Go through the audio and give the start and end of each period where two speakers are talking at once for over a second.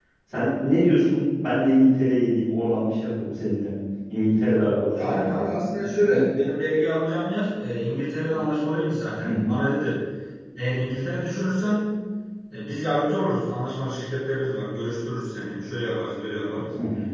none

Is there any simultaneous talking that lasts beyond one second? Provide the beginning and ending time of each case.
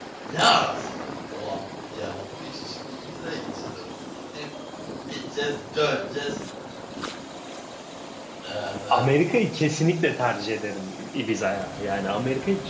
none

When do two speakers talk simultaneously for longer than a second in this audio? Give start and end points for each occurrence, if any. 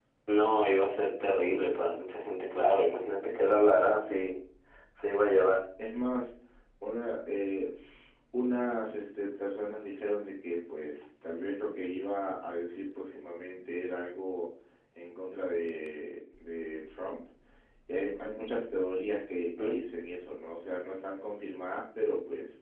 none

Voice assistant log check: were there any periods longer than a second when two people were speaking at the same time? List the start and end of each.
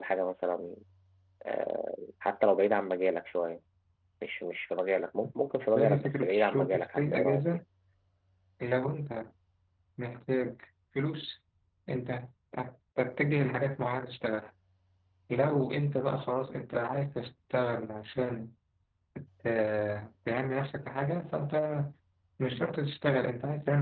5.8-7.4

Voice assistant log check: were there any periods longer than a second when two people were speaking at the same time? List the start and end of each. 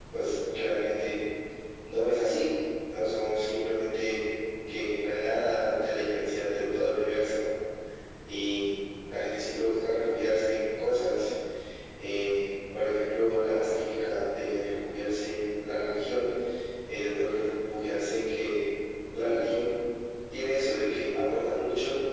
none

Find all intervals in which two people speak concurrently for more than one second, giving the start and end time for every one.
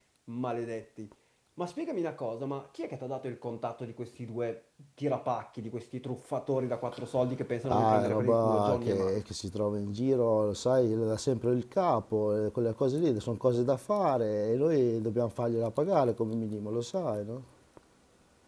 7.7-9.1

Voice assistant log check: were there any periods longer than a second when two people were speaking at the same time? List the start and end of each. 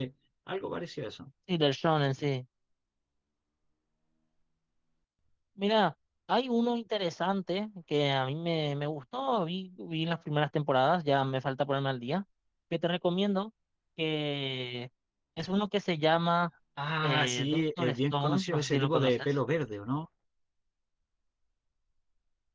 17.0-19.3

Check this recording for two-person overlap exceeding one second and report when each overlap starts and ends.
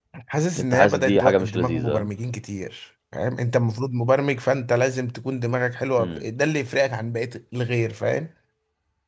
0.6-2.1

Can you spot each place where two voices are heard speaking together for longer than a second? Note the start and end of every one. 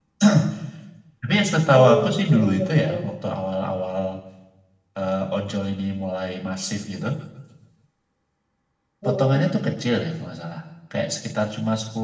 1.7-3.1

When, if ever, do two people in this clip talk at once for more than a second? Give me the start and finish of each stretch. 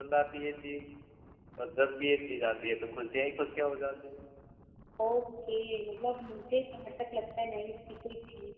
none

